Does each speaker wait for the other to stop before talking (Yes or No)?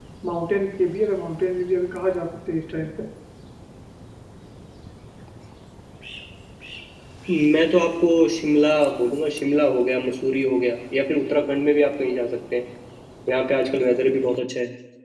Yes